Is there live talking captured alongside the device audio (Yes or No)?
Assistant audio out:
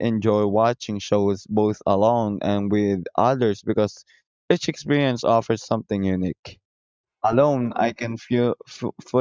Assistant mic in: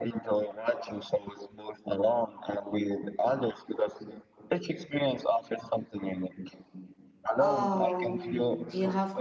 Yes